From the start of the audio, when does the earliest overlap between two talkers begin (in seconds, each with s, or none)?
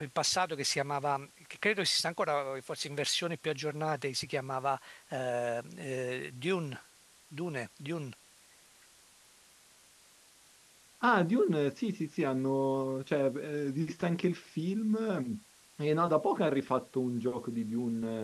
none